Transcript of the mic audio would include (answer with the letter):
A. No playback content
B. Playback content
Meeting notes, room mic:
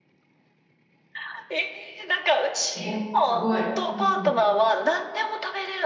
B